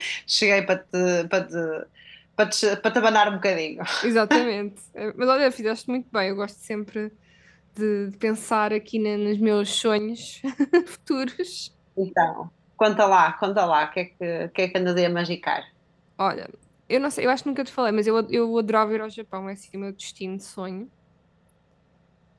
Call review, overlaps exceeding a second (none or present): none